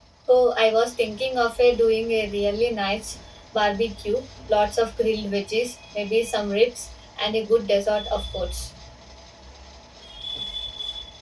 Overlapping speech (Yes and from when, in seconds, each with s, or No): No